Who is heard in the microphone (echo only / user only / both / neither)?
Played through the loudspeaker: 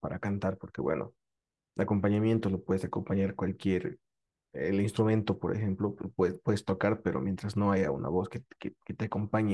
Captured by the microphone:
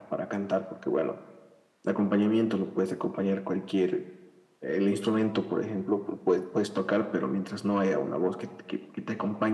echo only